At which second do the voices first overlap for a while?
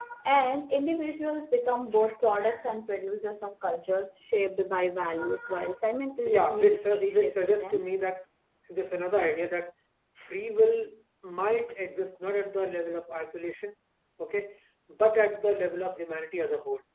6.2 s

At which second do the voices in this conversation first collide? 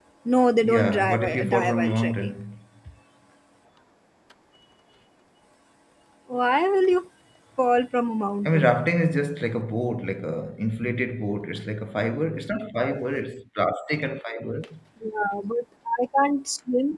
0.6 s

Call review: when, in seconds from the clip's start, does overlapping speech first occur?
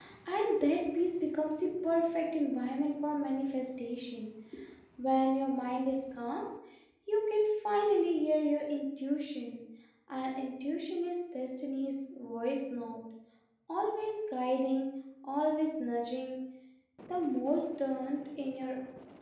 none

